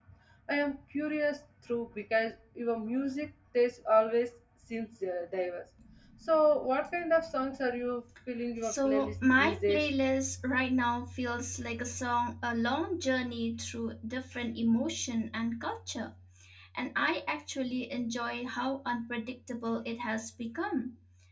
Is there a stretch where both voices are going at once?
Yes, from 8.6 s

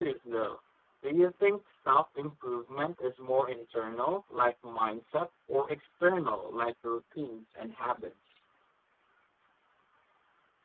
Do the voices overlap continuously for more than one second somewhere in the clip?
No

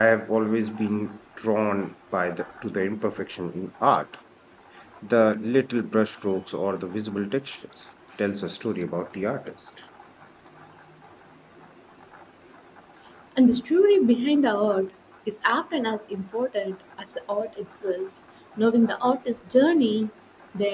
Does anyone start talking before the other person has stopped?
No

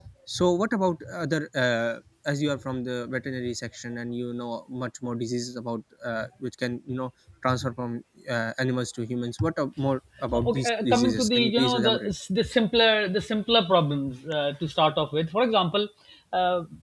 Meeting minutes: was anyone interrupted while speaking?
Yes, from 10.3 s

